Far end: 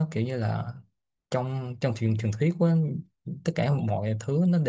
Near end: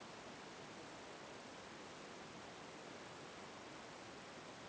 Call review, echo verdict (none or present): none